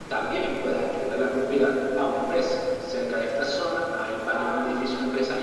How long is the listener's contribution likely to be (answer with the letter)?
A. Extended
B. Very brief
B